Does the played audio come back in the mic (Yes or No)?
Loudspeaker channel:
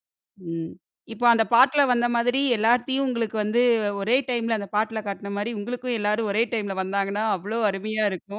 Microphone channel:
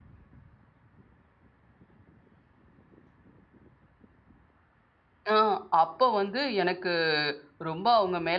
No